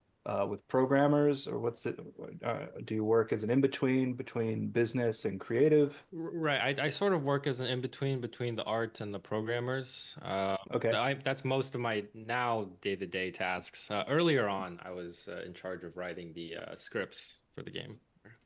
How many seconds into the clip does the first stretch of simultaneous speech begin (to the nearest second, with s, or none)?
none